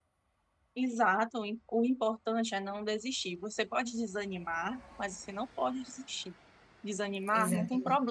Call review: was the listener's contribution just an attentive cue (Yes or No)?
Yes